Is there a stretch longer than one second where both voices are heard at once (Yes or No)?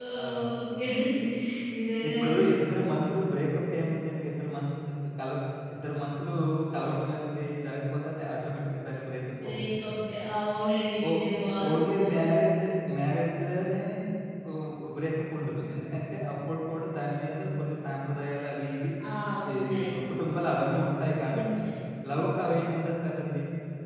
No